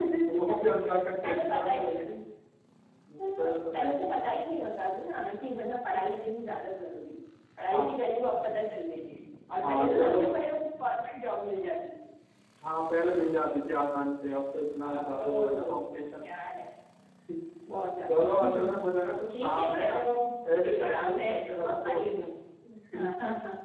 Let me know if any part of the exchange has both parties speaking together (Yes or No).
Yes